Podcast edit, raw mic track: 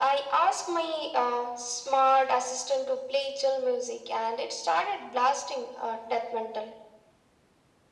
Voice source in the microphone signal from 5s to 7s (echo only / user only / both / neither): echo only